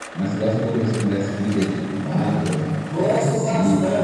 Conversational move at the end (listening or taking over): taking over